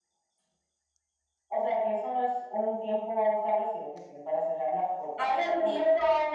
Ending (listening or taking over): taking over